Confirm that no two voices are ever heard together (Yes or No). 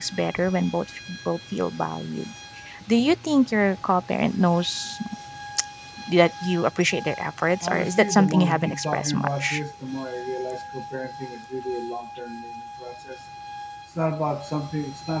No